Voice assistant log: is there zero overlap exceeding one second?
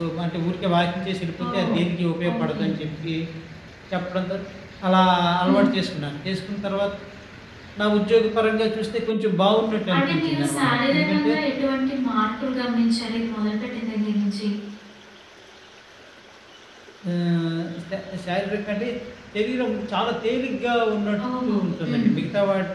No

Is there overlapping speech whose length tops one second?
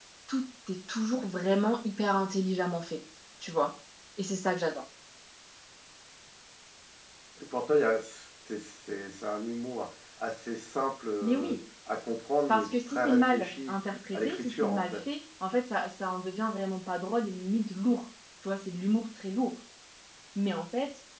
Yes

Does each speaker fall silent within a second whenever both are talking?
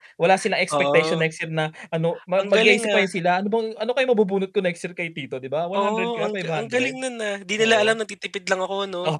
No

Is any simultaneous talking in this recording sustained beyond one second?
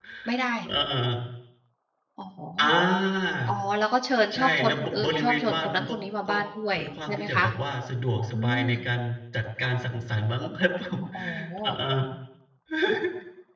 Yes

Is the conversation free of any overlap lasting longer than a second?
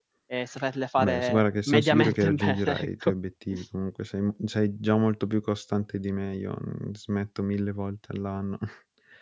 No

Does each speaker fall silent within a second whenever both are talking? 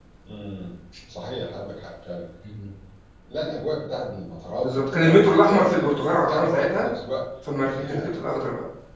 No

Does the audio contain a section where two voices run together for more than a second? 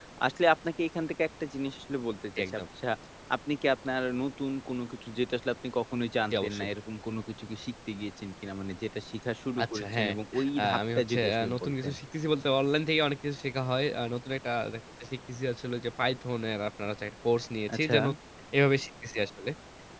Yes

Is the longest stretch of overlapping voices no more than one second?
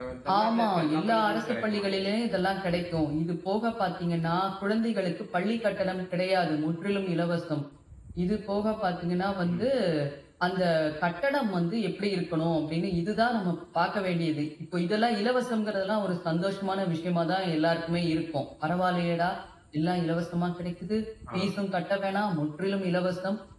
No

